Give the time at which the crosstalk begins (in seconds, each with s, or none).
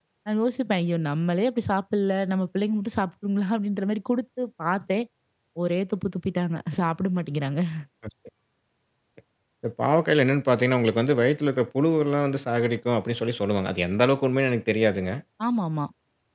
none